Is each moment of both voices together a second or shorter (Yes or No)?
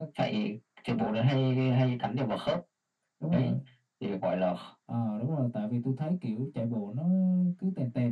Yes